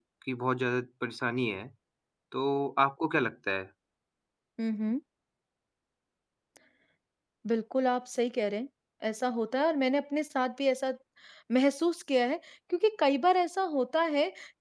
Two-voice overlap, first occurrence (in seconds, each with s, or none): none